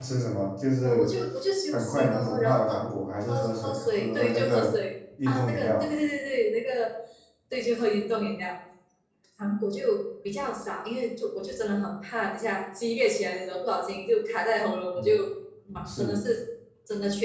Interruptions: present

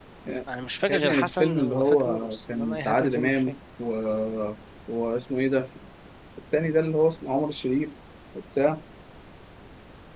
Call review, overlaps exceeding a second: present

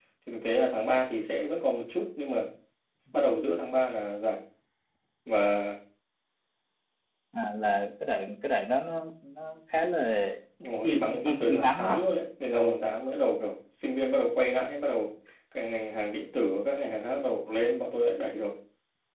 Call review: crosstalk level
present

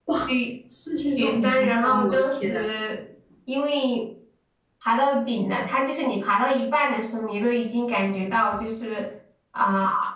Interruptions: present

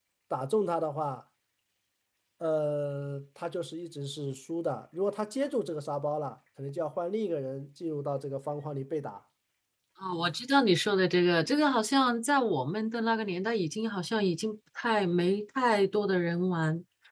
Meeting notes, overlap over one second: none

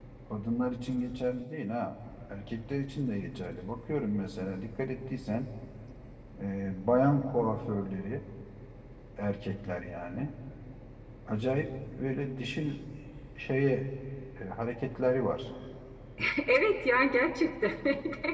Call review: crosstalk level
none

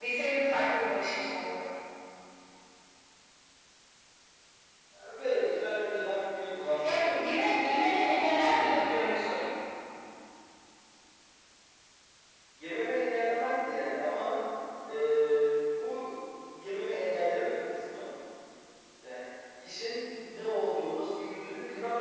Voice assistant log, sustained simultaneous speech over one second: present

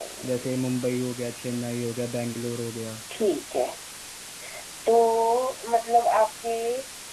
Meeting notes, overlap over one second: none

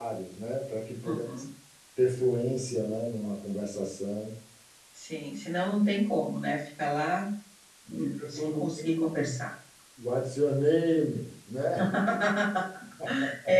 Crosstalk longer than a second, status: present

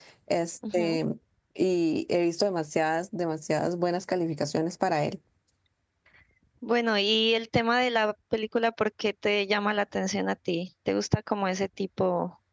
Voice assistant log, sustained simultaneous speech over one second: none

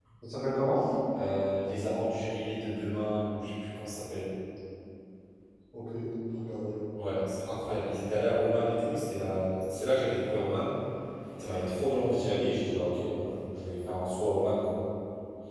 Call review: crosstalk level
none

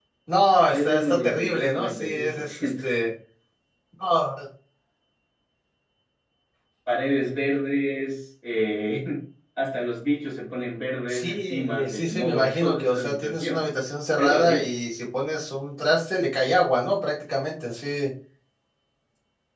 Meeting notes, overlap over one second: present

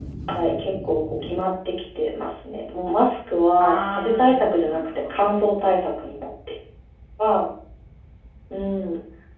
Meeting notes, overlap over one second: present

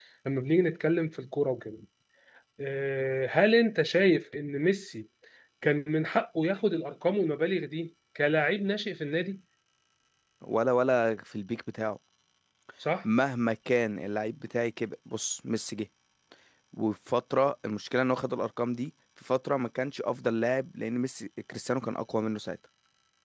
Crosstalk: none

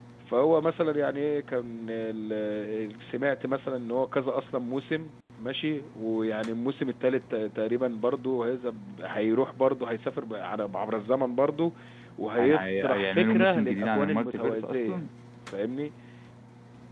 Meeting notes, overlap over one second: present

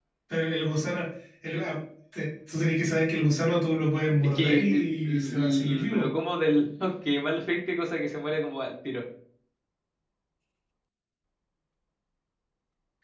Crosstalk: present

